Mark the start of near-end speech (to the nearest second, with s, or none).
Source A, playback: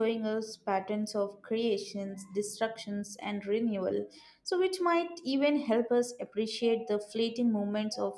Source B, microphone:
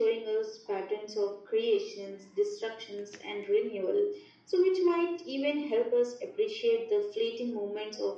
none